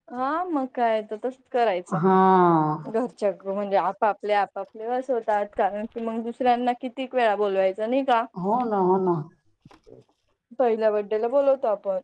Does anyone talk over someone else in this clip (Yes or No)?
No